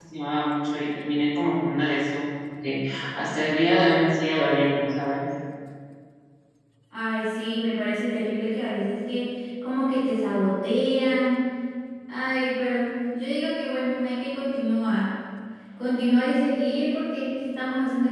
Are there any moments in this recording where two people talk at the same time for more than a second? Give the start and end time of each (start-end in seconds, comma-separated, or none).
none